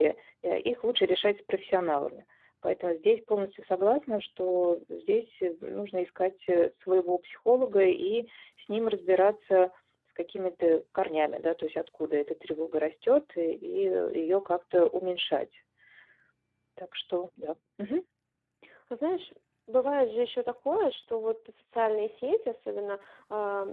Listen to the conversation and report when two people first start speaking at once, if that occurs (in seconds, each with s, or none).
none